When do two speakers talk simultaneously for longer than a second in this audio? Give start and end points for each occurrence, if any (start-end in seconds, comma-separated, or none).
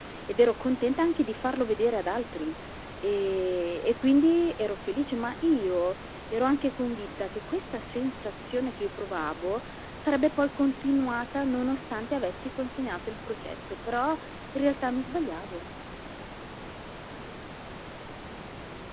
none